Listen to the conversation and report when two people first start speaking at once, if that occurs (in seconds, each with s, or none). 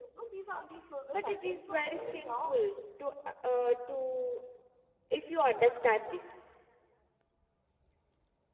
1.1 s